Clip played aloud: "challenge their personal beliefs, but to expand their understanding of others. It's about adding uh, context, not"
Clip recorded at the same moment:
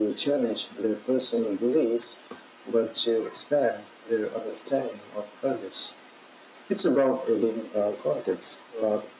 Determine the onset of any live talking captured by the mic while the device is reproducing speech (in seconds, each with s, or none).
none